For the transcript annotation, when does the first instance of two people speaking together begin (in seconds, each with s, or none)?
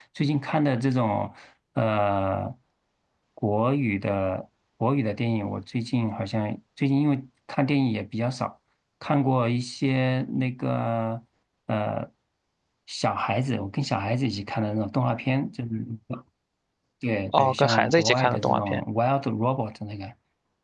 17.3 s